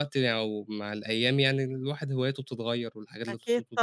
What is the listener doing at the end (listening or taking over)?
taking over